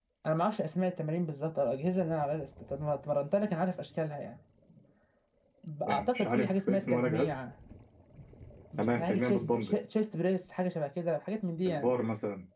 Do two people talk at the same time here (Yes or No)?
Yes